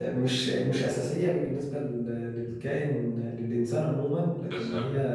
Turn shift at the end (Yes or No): No